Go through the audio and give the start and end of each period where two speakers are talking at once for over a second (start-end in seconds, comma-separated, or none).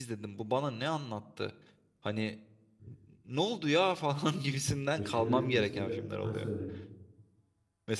5.0-6.5